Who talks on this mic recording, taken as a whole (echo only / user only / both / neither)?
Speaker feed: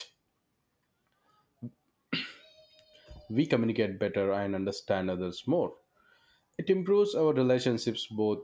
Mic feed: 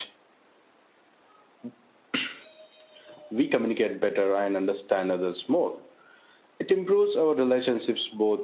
echo only